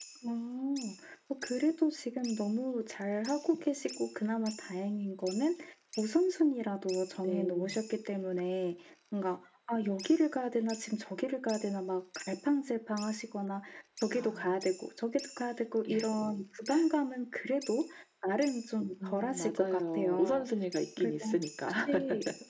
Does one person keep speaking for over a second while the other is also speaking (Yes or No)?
Yes